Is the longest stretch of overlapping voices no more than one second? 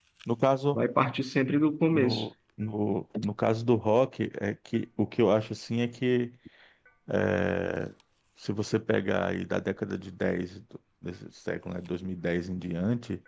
Yes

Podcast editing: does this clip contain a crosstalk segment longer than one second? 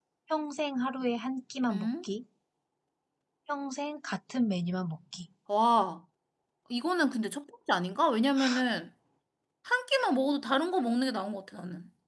No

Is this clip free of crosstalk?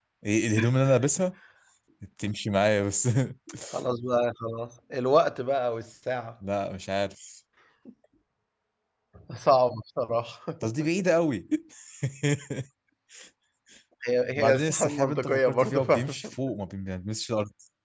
No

